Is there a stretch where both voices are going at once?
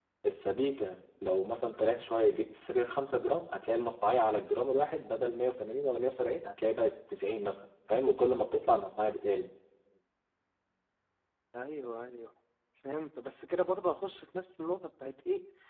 No

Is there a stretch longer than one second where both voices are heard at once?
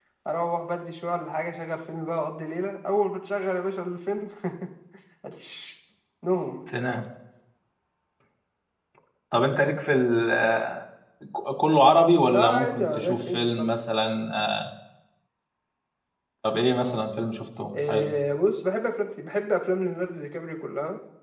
Yes, from 12.2 s

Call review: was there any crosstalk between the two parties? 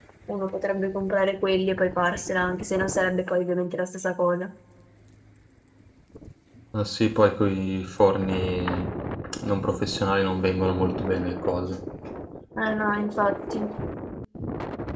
No

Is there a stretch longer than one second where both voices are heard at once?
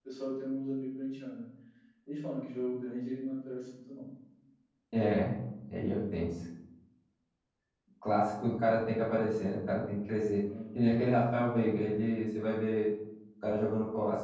No

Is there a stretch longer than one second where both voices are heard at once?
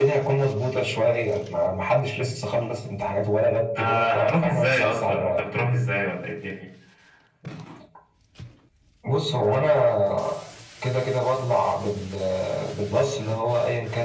Yes, from 3.8 s

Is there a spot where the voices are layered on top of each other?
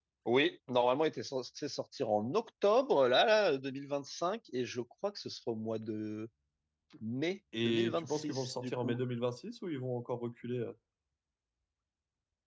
Yes, from 7.6 s

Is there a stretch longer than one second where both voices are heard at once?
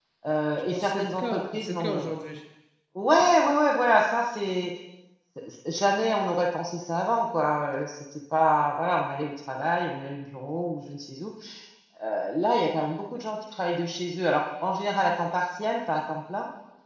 Yes, from 0.7 s

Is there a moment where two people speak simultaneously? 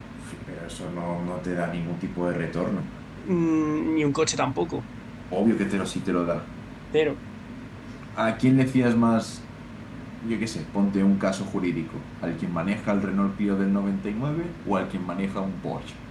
No

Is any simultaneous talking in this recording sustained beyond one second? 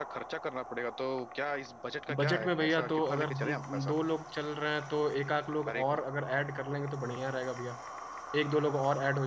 Yes, from 2.2 s

